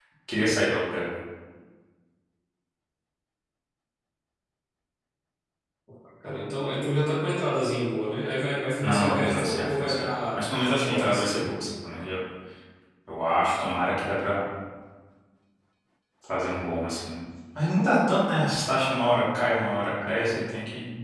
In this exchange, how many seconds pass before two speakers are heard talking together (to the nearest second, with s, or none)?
9 s